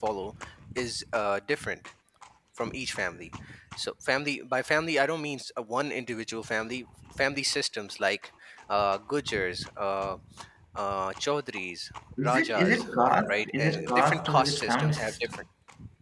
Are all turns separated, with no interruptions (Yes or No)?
No